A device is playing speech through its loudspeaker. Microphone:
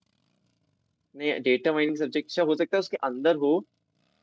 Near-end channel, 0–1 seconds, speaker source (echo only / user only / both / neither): neither